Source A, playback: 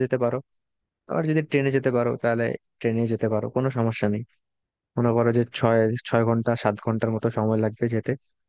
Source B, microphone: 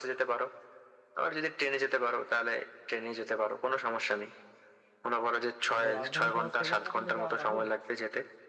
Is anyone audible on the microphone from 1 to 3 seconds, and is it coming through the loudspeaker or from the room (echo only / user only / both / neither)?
echo only